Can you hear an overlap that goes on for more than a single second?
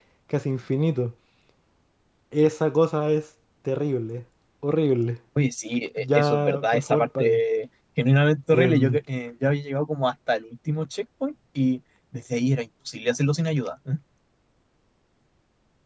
Yes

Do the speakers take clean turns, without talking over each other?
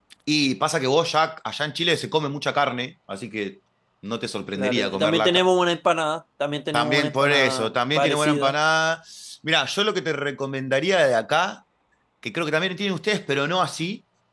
No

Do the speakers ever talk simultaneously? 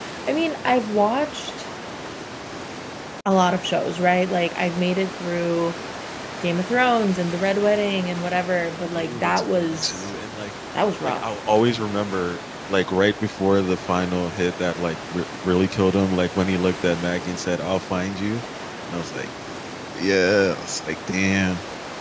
Yes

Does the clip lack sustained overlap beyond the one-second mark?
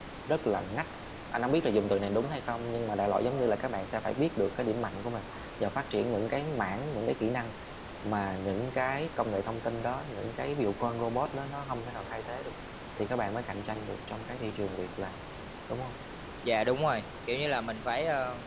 Yes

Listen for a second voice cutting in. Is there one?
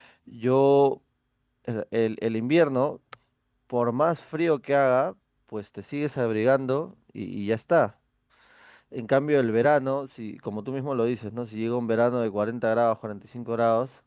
No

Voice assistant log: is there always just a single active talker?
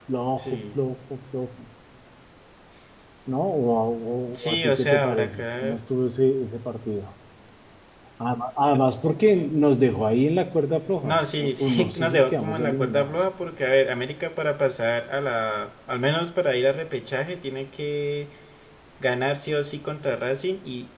No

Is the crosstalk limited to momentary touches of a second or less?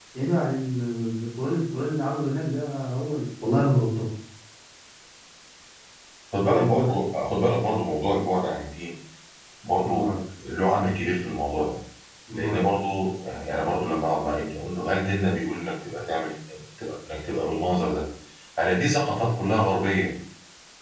Yes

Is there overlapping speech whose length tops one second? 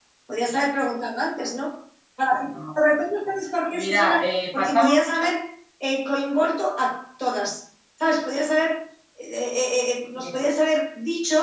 Yes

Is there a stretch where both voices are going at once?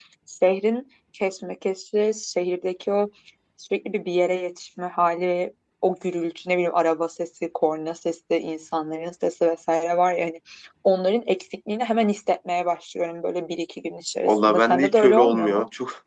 Yes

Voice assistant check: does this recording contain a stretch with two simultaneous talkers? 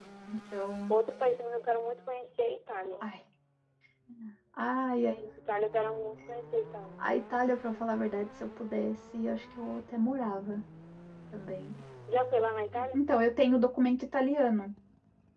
No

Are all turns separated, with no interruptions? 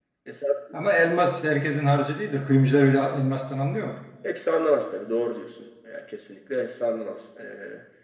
Yes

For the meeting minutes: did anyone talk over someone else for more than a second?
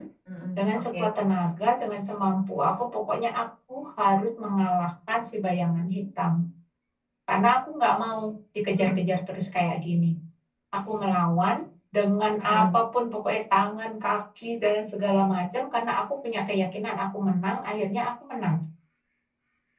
No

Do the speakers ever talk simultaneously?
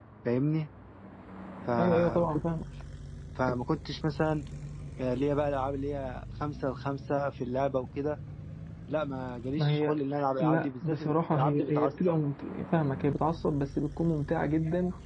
Yes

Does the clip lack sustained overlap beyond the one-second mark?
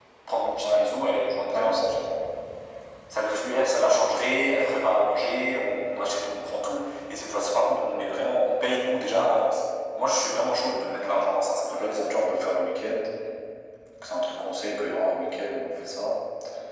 Yes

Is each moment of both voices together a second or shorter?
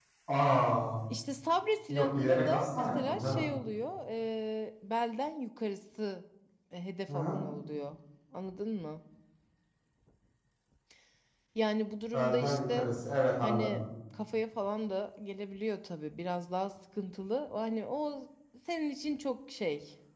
No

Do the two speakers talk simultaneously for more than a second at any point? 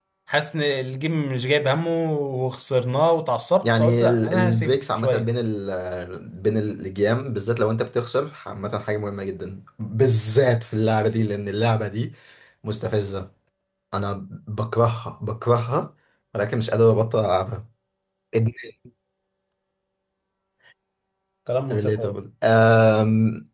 Yes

